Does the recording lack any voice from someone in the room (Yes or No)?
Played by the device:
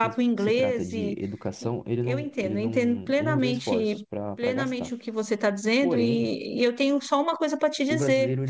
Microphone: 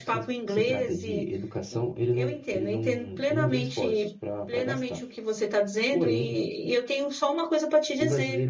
Yes